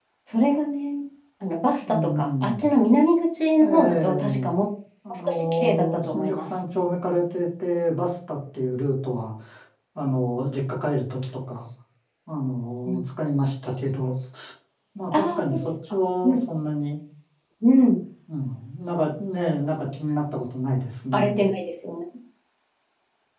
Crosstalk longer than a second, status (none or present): present